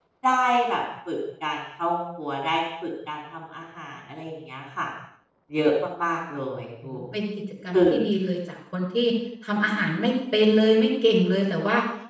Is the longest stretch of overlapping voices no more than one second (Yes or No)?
Yes